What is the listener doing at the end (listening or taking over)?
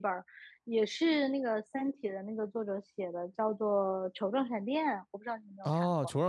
taking over